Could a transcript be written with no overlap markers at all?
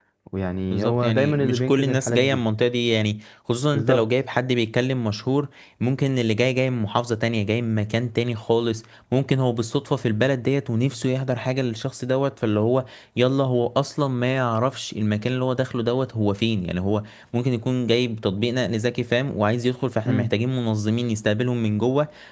No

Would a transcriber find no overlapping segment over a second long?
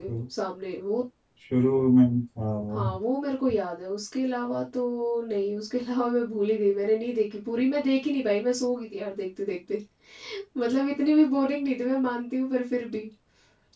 Yes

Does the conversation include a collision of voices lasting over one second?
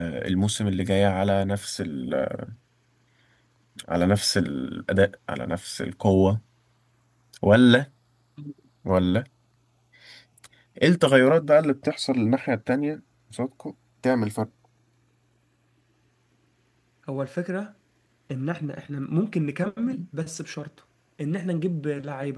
No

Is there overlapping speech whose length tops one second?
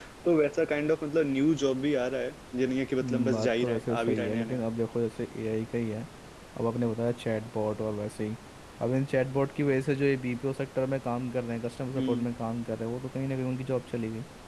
Yes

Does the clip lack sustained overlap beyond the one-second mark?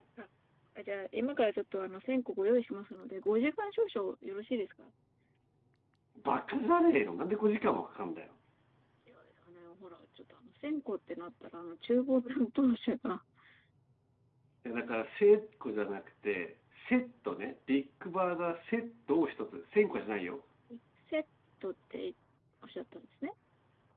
Yes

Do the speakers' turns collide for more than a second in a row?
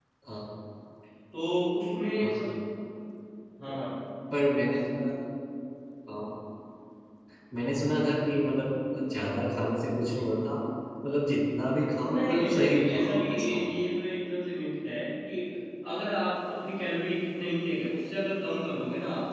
Yes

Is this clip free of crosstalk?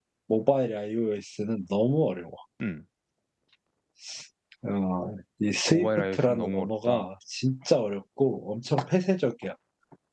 No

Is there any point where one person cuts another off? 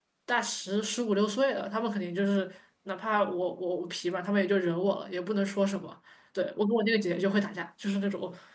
No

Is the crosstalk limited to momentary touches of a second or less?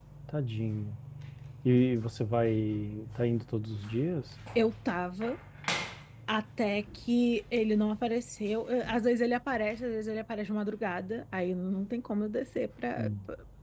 Yes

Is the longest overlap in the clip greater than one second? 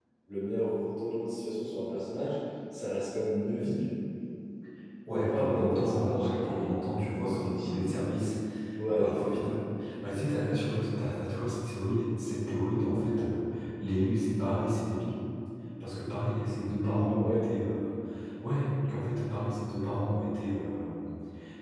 Yes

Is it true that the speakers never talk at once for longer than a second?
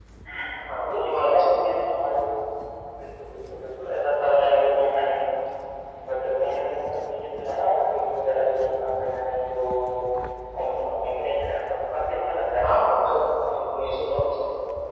No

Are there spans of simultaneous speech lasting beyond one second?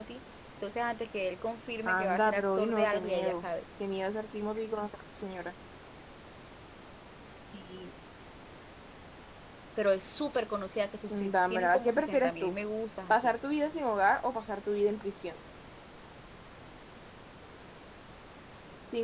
Yes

